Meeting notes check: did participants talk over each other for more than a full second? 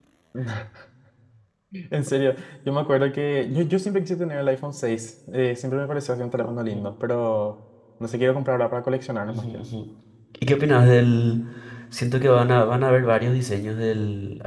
No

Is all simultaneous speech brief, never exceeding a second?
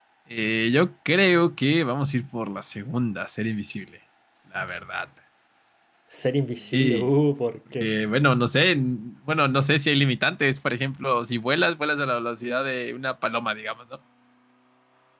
Yes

